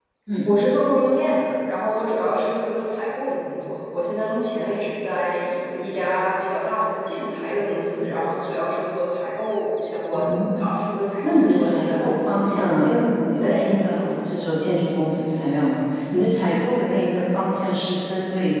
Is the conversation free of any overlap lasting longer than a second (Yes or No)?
No